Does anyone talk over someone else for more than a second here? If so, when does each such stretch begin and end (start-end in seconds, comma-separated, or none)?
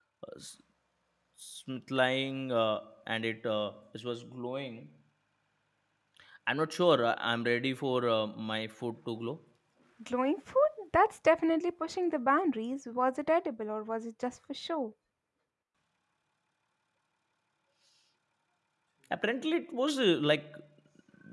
none